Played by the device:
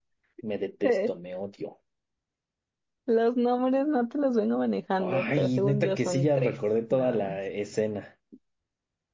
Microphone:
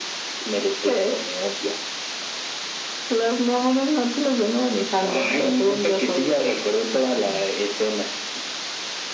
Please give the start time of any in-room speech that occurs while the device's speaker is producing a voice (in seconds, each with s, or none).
none